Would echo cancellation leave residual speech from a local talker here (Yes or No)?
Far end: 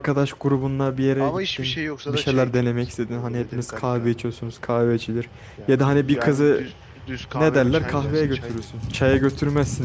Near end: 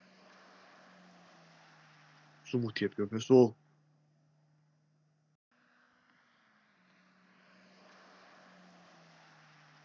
Yes